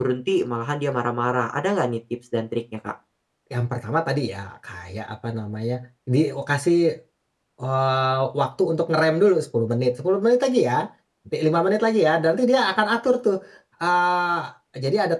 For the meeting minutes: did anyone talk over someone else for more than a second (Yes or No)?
No